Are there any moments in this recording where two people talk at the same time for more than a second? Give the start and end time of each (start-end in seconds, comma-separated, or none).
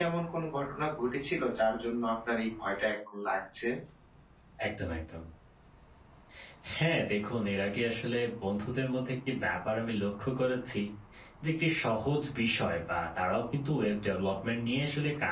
none